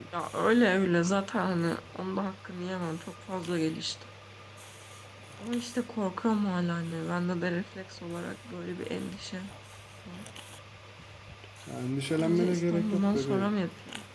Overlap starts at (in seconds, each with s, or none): 12.2 s